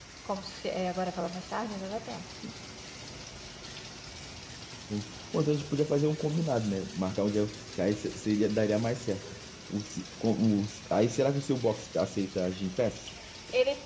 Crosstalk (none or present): none